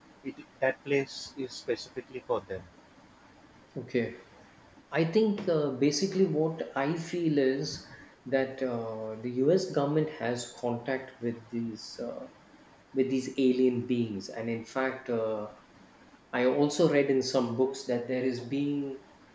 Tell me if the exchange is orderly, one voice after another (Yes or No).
Yes